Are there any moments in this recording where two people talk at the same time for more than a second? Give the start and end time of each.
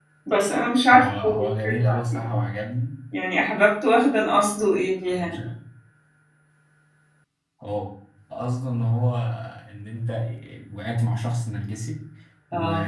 0.9-2.3

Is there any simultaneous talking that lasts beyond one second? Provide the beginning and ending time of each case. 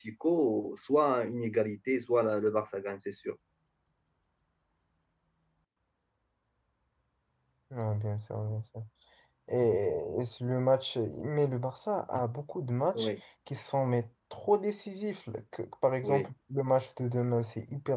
none

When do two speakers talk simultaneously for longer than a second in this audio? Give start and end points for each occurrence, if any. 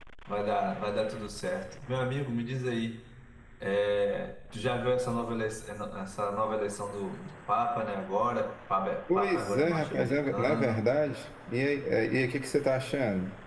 9.1-10.8

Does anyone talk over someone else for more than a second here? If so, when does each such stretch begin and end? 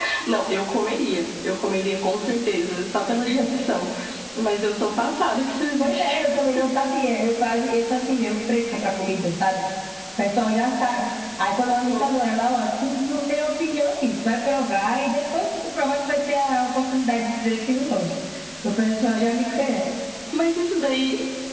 none

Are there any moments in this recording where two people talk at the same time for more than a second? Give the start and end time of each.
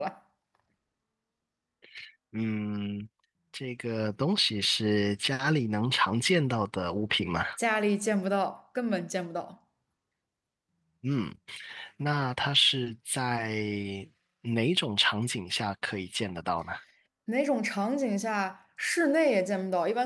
none

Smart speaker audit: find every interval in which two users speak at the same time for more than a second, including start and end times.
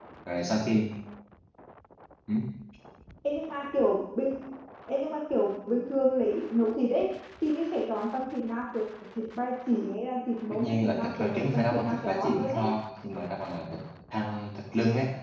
10.5-12.7

